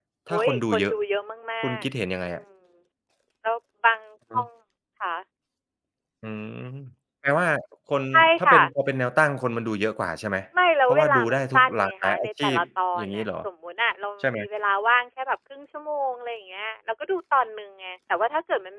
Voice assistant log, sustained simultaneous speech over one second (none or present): present